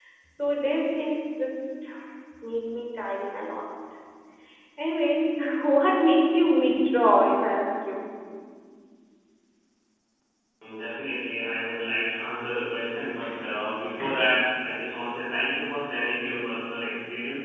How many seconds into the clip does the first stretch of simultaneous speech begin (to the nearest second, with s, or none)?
none